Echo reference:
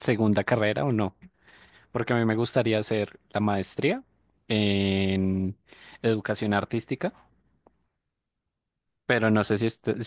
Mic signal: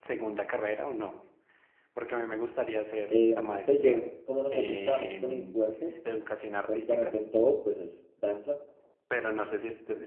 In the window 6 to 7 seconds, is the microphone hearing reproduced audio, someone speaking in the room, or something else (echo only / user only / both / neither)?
both